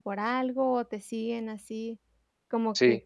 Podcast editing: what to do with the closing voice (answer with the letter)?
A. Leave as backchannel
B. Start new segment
A